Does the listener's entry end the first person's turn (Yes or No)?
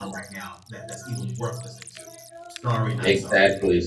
Yes